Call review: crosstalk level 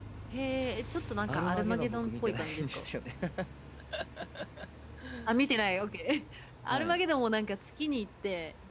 present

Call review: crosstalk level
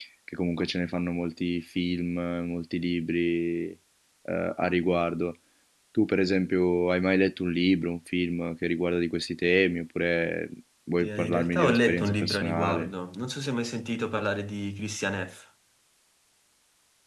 present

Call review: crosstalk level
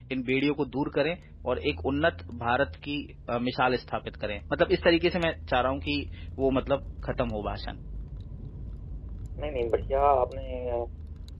none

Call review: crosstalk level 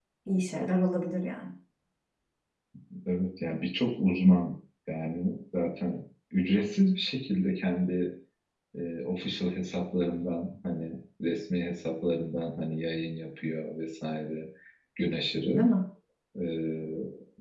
none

